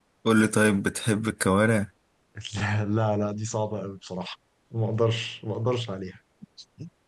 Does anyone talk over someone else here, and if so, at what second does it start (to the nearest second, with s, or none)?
none